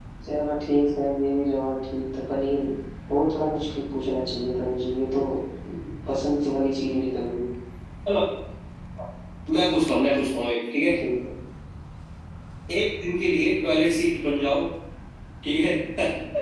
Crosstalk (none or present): none